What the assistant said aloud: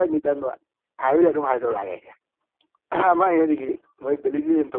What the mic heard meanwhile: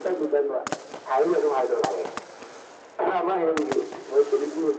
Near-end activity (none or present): none